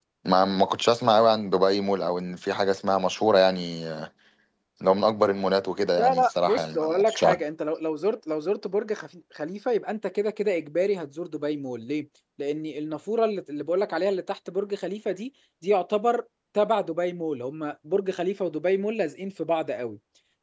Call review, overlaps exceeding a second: present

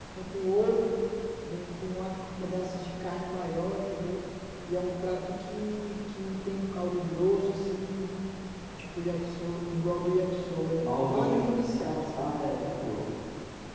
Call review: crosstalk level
present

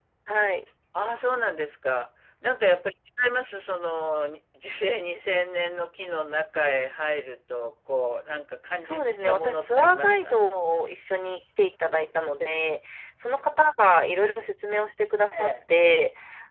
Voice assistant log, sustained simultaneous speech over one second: present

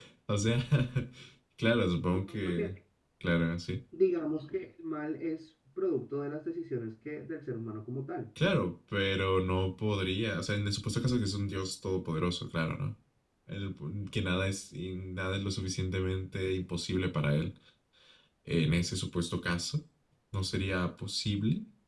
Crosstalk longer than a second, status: none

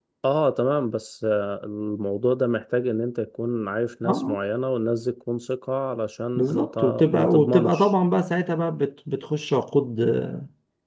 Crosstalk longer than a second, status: present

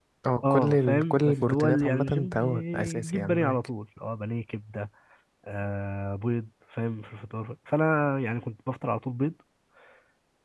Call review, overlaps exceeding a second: present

